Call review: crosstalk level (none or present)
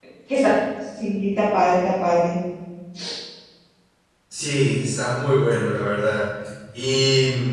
none